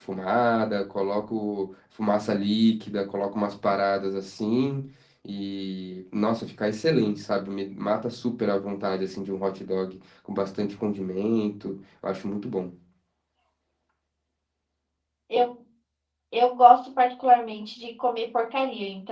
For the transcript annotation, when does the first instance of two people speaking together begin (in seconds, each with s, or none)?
none